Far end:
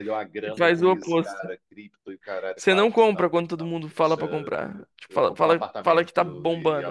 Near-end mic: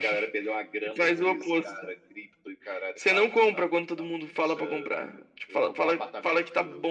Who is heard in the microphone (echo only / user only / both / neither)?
echo only